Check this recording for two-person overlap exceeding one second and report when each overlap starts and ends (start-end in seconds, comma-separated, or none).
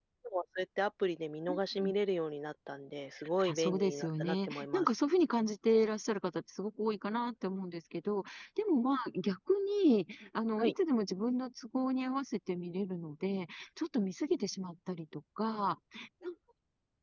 3.5-4.9